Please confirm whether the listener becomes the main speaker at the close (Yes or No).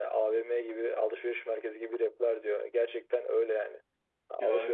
No